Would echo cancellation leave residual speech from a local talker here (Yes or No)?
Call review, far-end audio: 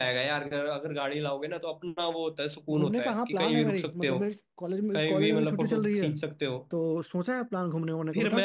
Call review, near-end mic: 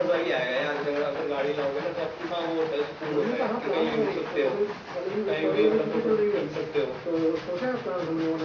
No